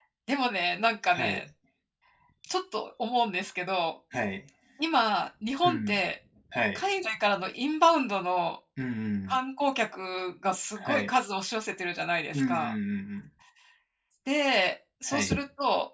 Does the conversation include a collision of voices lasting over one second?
No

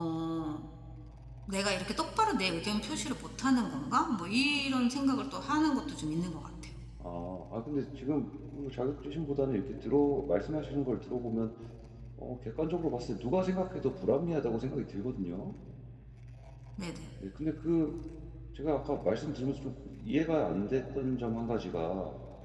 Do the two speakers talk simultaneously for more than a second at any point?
No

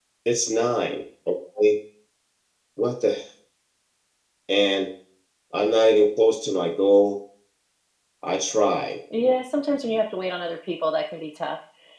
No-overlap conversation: Yes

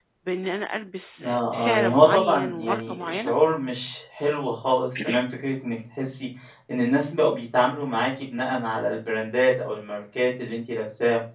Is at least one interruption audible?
Yes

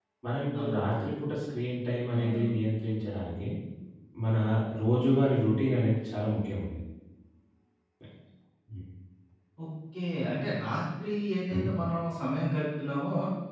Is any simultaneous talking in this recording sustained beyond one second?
No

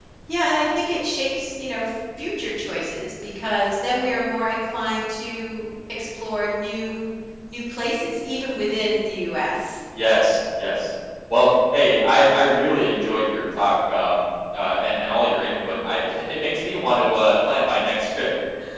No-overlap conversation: Yes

